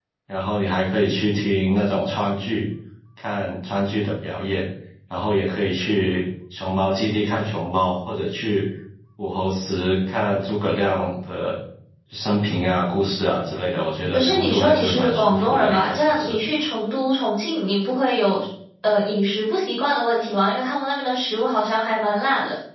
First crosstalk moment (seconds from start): 14.1 s

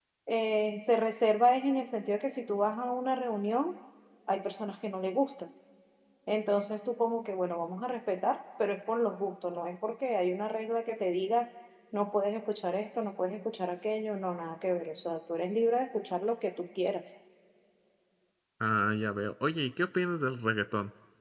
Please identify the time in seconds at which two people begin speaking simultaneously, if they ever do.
none

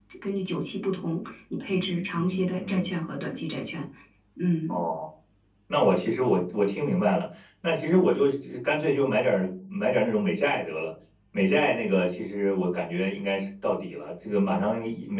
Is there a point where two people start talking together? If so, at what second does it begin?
1.7 s

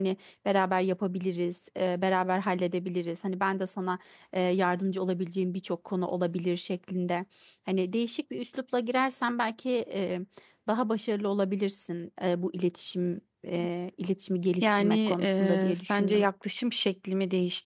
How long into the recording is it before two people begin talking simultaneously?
14.6 s

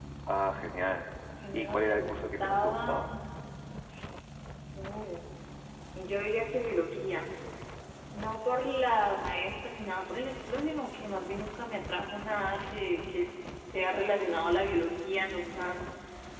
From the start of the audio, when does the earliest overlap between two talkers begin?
1.5 s

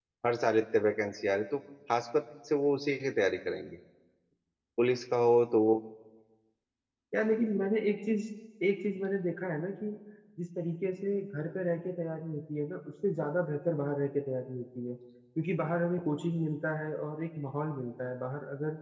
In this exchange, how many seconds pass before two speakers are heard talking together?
none

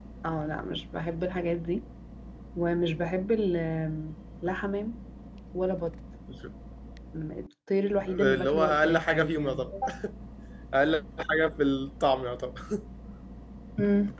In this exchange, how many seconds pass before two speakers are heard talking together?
8.1 s

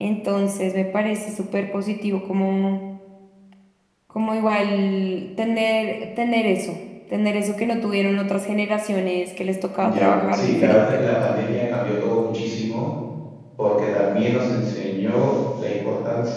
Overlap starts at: 9.8 s

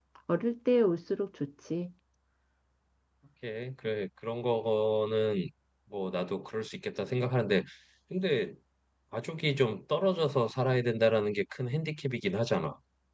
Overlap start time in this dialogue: none

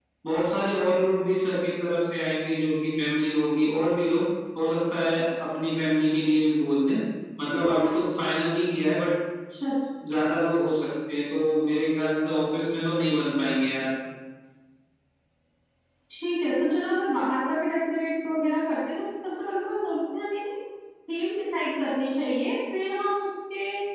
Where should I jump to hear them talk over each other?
none

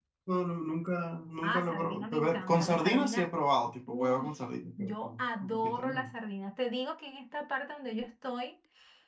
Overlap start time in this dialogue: 1.4 s

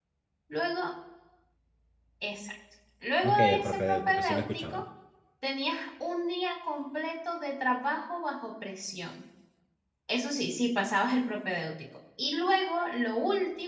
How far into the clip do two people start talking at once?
3.2 s

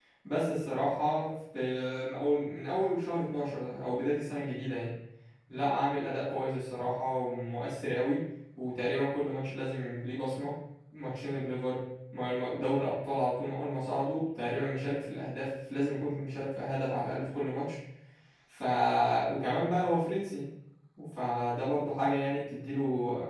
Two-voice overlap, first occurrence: none

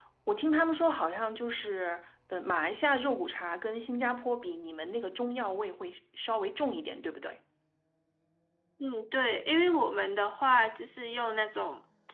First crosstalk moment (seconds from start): none

